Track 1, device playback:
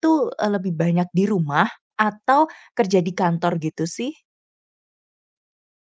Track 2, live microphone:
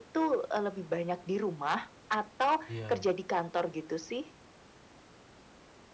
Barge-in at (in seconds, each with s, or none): 2.7 s